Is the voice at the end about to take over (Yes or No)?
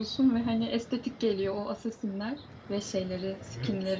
No